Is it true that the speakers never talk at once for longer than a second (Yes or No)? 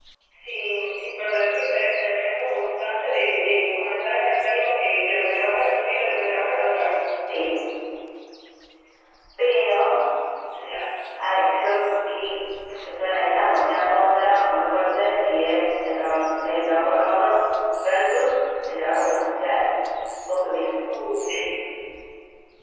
Yes